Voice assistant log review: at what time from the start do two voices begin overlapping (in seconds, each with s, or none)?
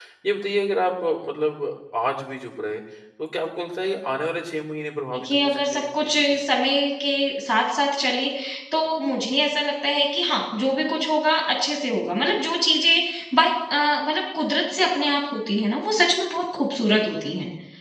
5.1 s